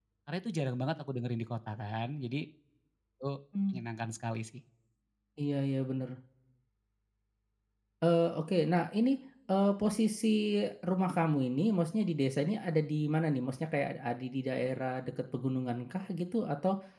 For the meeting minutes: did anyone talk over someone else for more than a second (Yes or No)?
No